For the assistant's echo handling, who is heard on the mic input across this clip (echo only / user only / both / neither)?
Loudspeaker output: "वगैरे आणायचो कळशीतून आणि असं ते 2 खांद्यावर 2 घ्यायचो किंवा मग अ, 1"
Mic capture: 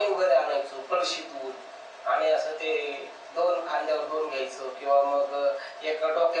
echo only